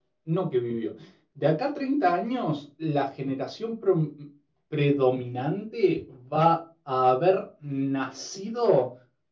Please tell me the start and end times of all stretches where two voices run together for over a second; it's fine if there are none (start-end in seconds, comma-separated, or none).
none